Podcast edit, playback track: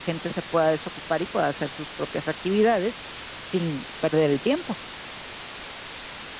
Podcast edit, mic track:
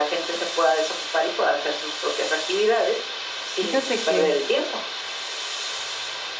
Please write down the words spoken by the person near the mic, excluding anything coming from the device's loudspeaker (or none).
Fíjate que